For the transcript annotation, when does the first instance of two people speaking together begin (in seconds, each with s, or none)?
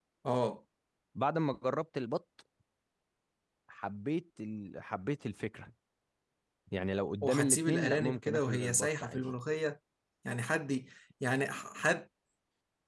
7.2 s